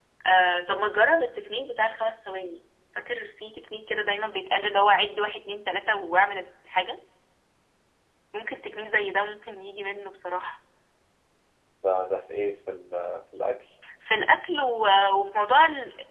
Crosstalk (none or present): none